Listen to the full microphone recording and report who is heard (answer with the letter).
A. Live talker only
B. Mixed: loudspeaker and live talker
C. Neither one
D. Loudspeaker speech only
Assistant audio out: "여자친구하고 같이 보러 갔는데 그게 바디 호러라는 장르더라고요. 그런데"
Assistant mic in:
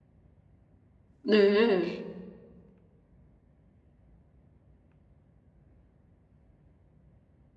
A